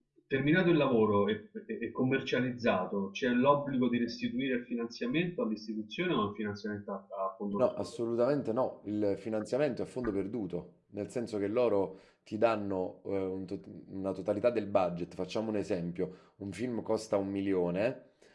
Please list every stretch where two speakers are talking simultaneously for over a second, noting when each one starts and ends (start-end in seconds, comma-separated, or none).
none